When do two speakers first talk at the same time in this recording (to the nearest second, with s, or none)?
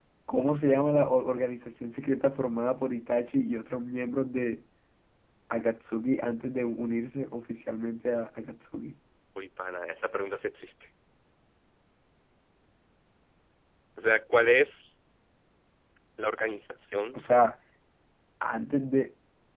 none